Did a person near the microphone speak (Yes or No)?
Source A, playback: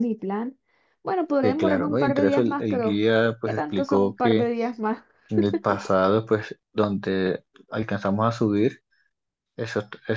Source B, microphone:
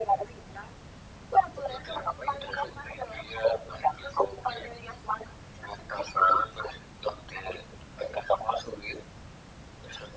No